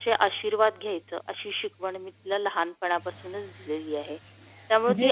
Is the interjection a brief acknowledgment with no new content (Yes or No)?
Yes